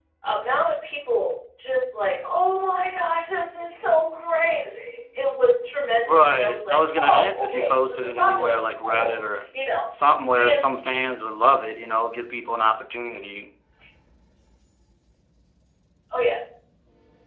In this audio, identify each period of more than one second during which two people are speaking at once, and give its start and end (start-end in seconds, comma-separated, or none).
6.1-8.5